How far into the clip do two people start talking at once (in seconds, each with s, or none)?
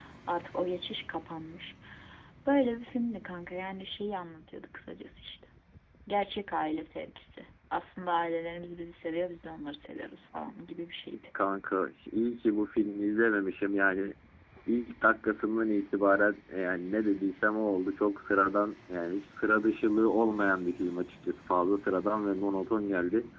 none